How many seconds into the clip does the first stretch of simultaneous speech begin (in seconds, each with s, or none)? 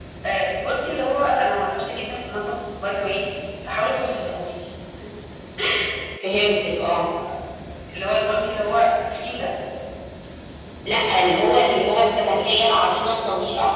none